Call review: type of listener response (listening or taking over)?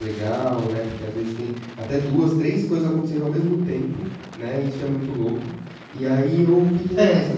listening